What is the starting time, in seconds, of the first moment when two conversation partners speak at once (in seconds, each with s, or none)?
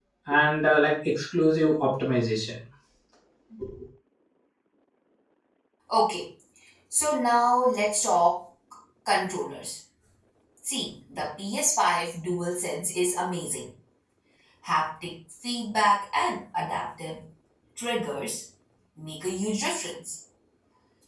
none